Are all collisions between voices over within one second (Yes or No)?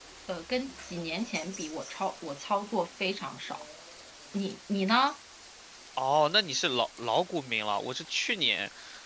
Yes